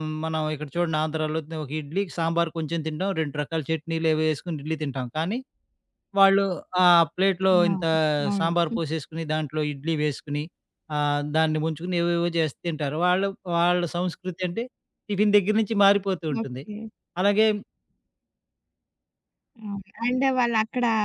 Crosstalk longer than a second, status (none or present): none